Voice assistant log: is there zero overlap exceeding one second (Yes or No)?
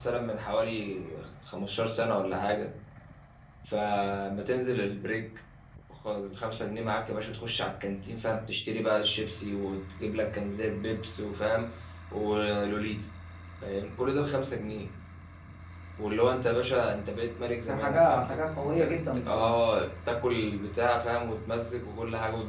No